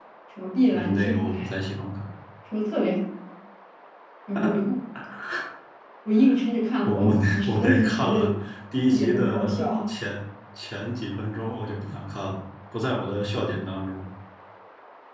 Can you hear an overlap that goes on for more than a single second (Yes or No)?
Yes